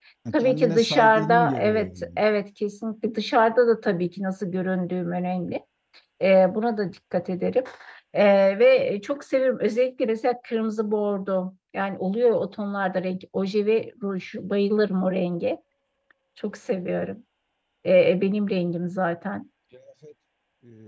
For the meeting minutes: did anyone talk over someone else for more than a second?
Yes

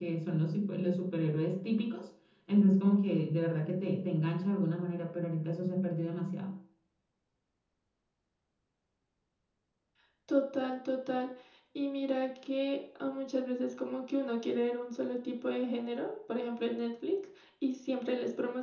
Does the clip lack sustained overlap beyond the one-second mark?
Yes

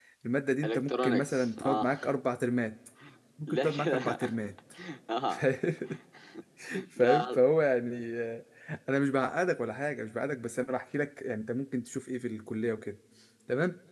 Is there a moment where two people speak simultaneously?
Yes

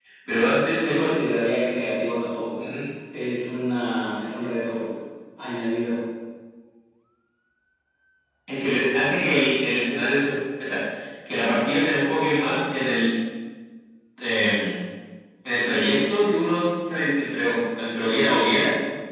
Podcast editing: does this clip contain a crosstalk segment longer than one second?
No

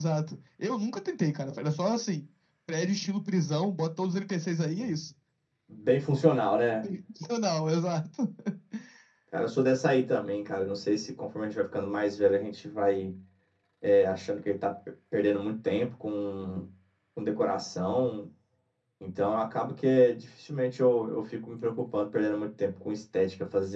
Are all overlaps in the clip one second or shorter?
Yes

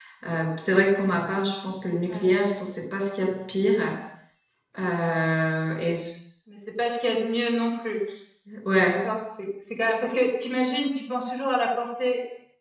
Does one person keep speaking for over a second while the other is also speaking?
No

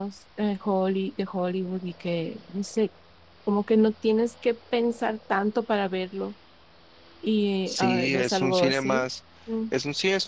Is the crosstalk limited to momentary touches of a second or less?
No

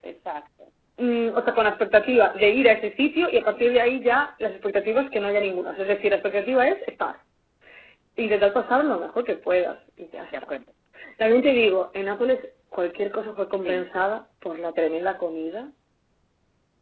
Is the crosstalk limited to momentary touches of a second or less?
Yes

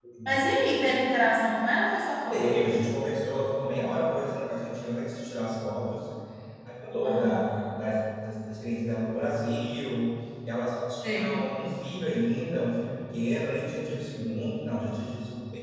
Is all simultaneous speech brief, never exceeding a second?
Yes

